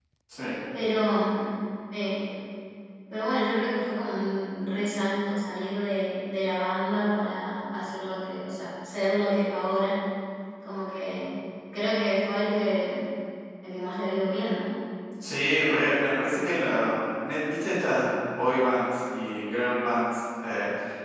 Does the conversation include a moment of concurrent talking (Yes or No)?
No